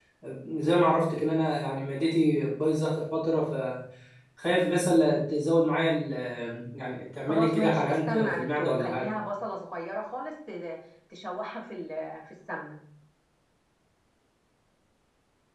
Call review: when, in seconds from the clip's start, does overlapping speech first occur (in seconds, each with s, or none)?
7.3 s